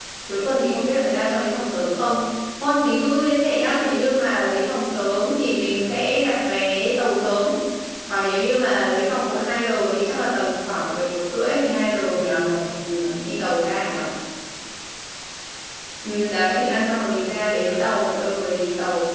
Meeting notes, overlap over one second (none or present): present